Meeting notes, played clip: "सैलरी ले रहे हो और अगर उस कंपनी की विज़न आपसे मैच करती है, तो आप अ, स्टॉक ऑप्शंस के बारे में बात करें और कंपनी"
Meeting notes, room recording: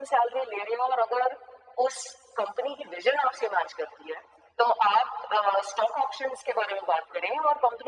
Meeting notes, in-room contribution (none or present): none